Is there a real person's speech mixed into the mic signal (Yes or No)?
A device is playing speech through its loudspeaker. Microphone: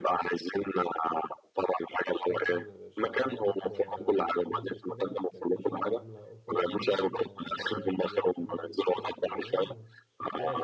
Yes